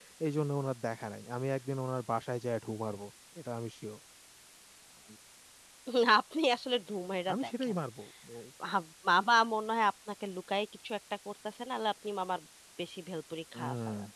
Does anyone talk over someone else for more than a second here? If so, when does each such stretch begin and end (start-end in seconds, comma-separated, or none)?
none